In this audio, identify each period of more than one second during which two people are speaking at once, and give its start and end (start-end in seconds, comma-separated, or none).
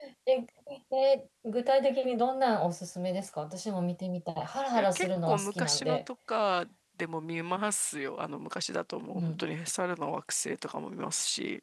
4.7-6.0